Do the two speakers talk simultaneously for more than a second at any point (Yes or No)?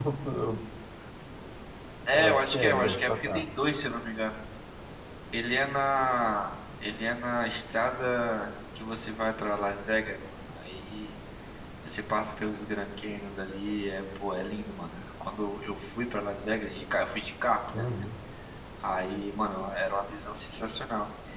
Yes